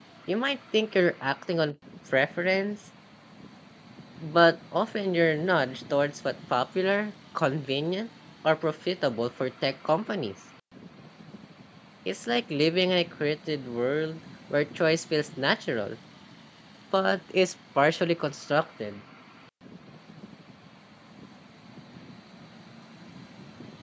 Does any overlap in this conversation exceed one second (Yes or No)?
No